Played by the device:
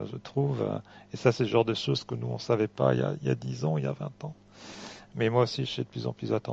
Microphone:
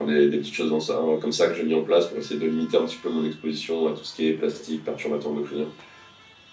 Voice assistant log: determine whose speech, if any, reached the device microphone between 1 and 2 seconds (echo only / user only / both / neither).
user only